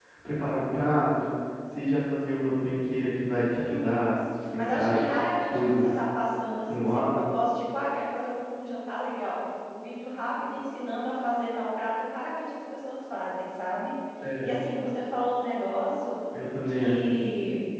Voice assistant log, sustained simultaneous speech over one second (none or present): none